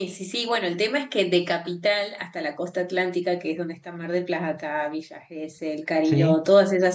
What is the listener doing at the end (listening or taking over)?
listening